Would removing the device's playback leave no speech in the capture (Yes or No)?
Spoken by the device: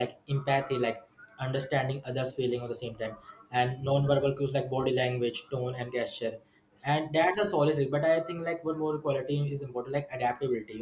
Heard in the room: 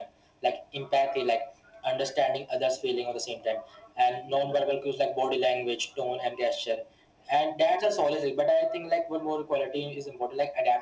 Yes